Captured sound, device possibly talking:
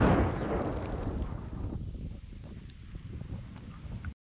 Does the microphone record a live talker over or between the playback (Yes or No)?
No